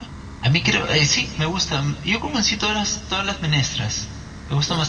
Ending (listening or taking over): listening